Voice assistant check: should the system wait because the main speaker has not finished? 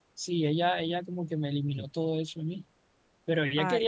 Yes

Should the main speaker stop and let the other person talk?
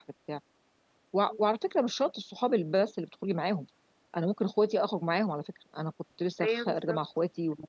No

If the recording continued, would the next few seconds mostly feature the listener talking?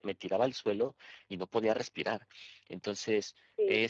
No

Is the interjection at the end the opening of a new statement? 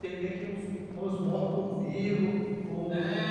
Yes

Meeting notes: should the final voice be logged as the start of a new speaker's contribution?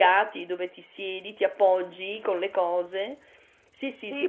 Yes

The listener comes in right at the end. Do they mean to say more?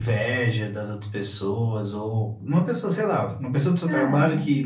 No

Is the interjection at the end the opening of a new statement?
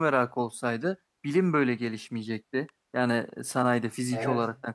No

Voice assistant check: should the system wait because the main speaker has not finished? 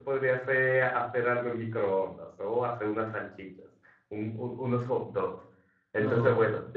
Yes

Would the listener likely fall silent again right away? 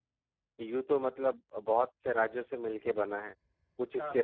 Yes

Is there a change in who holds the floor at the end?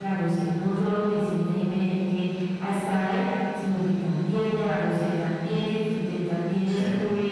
No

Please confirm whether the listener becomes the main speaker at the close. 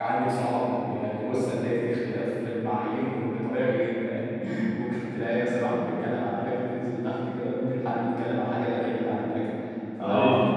No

